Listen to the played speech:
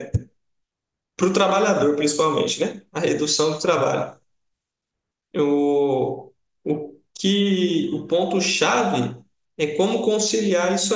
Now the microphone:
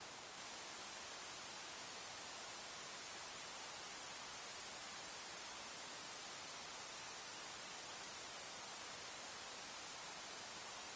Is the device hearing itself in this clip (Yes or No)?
No